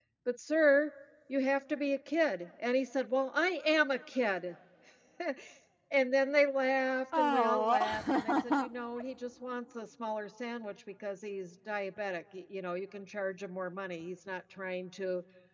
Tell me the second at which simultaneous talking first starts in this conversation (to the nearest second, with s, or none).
7 s